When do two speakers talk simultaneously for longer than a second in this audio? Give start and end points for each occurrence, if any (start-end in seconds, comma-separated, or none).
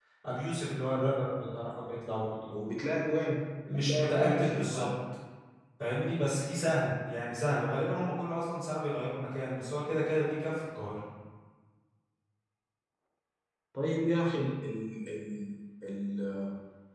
3.7-4.9